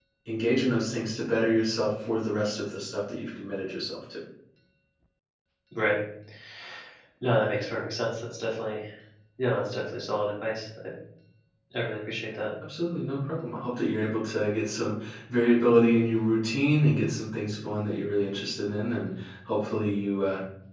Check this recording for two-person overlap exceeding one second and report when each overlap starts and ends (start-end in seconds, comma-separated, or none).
none